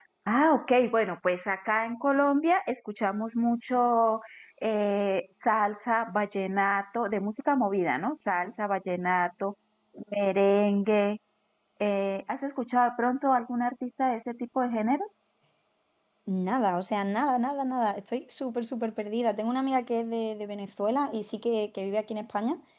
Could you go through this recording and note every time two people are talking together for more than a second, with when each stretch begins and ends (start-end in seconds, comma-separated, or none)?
none